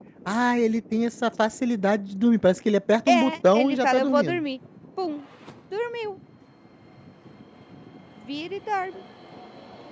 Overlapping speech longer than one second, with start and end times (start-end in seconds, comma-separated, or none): 3.1-4.4